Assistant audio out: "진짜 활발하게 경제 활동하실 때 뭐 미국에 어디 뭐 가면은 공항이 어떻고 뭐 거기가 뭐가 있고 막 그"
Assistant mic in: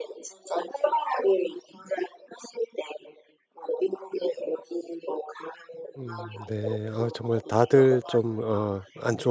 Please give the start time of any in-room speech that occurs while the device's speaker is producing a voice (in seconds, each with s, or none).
6.0 s